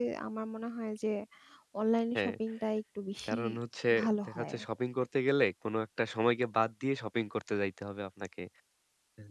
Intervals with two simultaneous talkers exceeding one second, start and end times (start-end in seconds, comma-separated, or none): none